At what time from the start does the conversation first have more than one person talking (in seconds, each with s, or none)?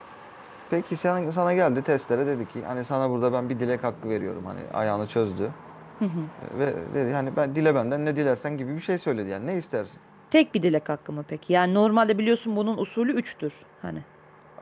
none